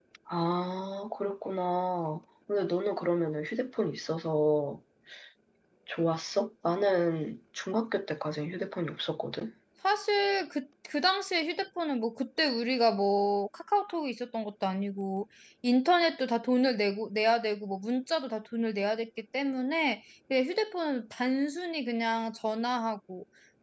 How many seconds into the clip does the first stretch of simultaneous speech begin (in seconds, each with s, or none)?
none